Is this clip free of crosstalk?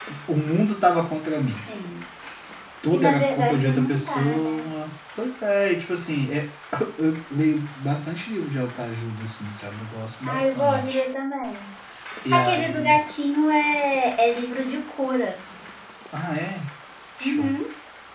No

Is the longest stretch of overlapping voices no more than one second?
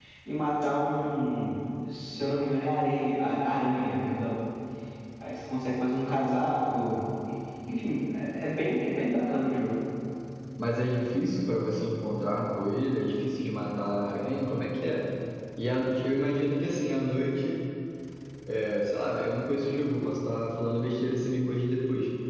Yes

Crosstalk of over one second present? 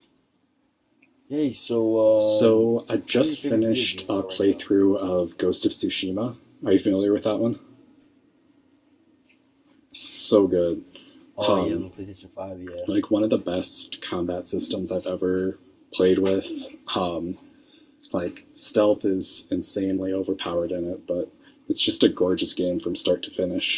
Yes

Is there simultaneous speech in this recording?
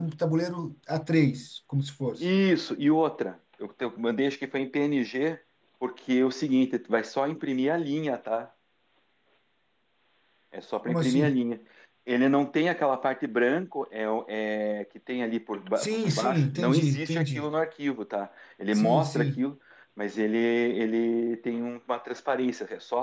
Yes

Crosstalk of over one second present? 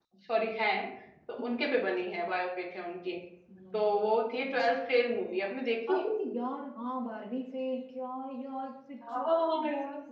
No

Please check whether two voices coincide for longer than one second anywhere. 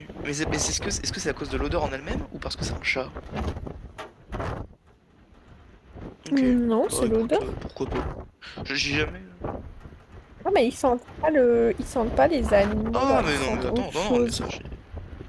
Yes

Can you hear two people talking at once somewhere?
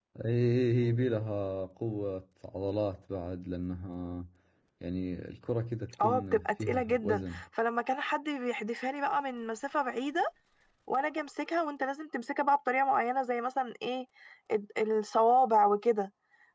Yes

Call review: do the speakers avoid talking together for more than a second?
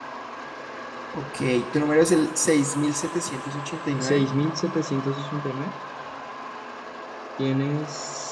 Yes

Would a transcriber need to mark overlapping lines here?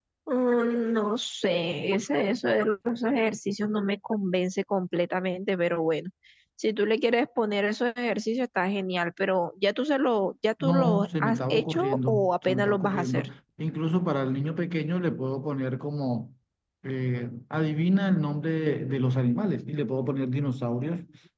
Yes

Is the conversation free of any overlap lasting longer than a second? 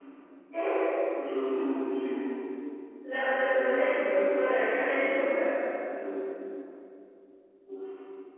No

